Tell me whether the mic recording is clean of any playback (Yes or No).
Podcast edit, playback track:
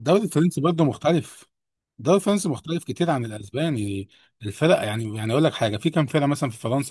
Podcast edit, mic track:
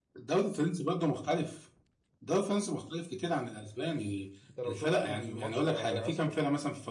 No